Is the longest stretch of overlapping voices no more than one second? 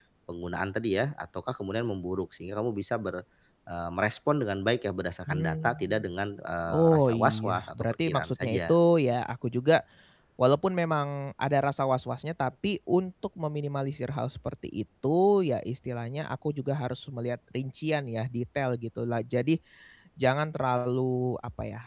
No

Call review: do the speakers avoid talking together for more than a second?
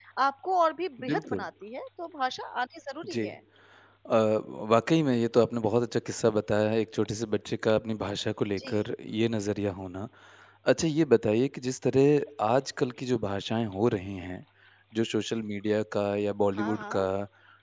Yes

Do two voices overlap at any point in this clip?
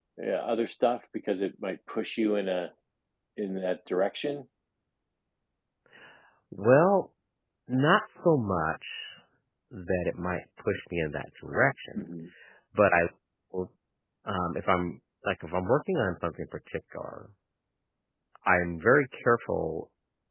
No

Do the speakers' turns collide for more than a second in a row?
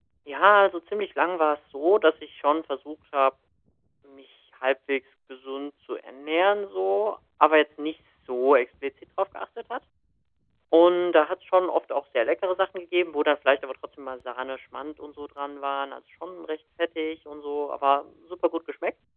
No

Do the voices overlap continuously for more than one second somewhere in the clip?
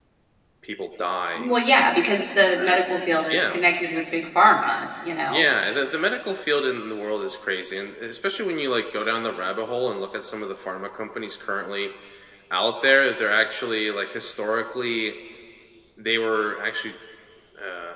No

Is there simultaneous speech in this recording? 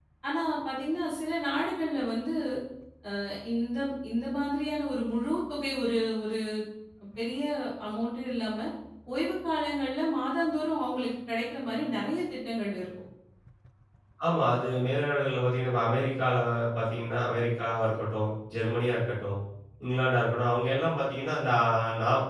No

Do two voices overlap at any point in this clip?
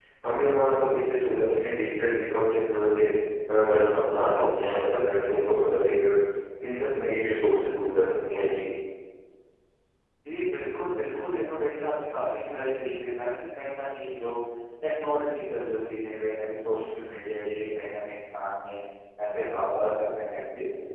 Yes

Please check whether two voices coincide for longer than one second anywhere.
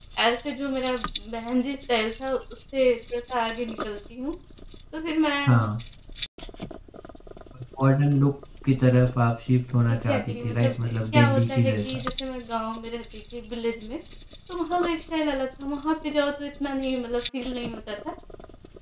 Yes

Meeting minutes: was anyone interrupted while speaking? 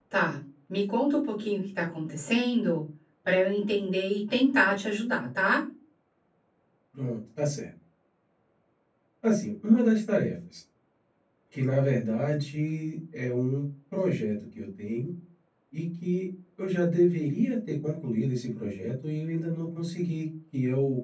No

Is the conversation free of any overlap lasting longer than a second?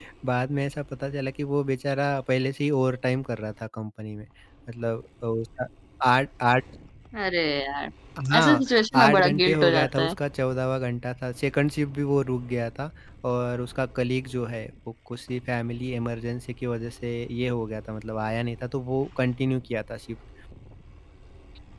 No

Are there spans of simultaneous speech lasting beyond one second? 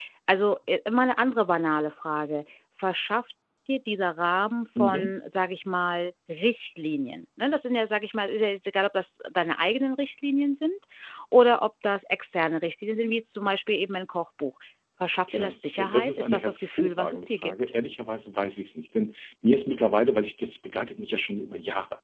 Yes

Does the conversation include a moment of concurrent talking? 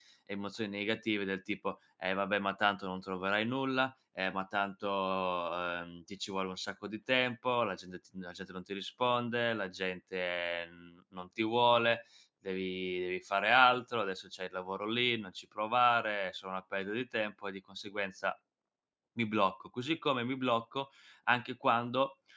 No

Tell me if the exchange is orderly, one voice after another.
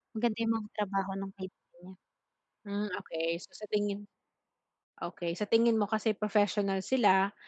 Yes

